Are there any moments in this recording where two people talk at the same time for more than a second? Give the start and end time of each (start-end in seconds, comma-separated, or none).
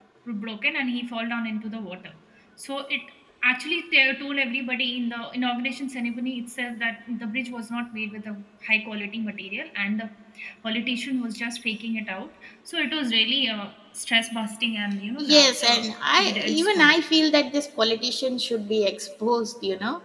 15.2-17.0